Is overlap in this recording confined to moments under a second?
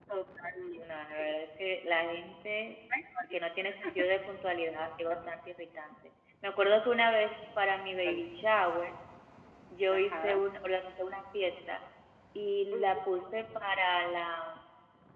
Yes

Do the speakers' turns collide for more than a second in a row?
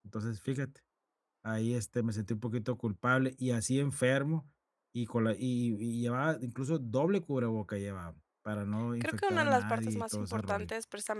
Yes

